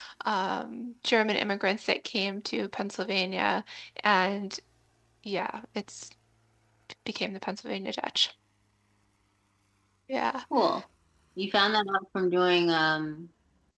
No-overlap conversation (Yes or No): Yes